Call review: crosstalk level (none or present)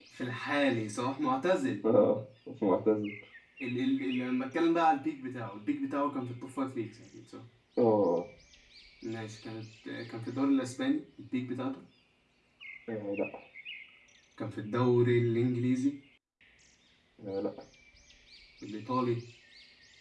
none